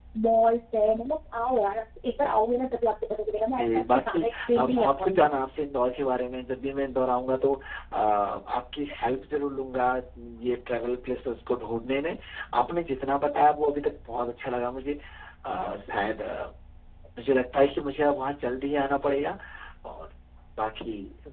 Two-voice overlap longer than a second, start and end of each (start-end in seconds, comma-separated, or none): 3.6-5.3